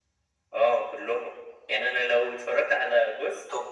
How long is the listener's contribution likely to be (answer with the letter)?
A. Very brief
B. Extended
A